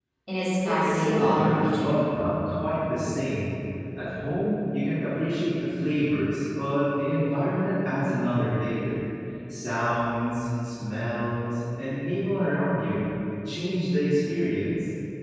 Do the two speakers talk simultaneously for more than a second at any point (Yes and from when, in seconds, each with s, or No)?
Yes, from 0.7 s